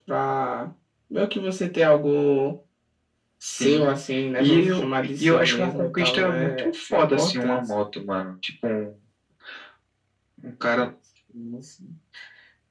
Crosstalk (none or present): present